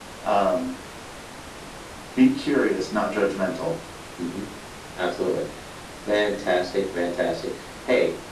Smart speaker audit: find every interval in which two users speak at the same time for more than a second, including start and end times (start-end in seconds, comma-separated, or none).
none